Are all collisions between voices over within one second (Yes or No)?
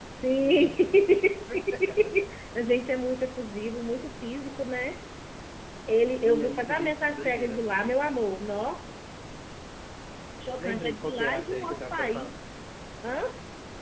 No